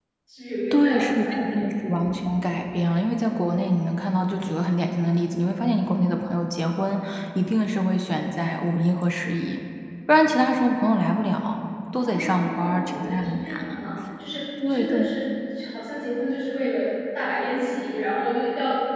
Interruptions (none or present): present